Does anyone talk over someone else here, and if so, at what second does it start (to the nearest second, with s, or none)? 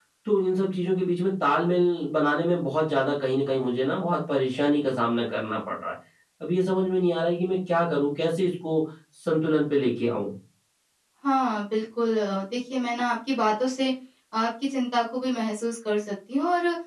none